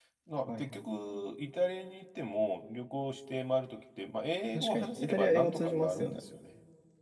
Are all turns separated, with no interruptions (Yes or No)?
No